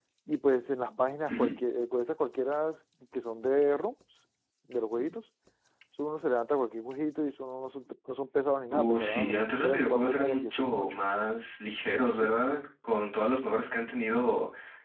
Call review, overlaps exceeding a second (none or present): present